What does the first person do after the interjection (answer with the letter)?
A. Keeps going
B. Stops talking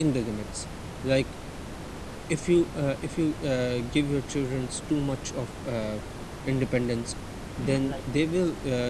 A